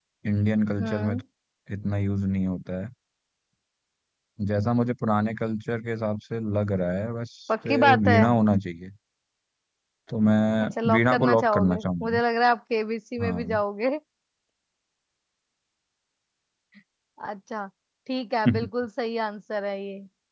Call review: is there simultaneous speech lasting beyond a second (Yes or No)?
Yes